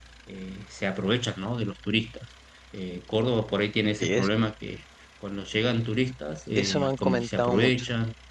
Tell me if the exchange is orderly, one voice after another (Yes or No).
No